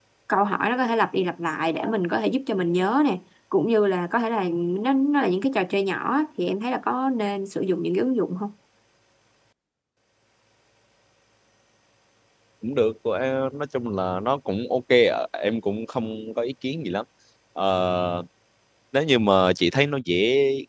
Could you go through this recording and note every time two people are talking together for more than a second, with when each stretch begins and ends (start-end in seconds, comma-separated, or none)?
none